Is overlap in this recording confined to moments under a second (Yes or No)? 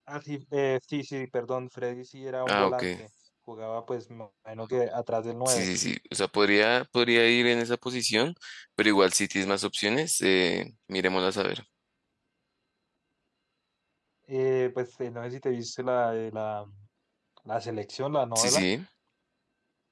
Yes